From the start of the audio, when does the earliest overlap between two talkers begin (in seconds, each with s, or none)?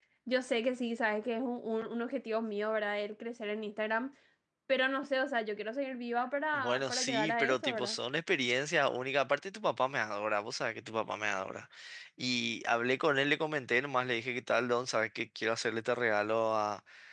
6.5 s